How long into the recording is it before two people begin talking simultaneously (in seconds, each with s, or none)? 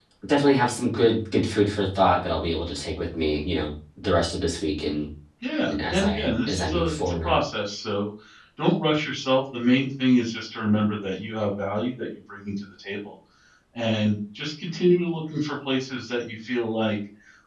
5.7 s